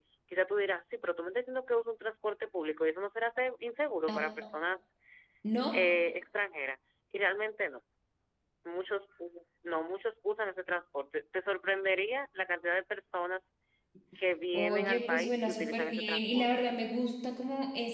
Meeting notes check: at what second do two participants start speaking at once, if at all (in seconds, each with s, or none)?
14.5 s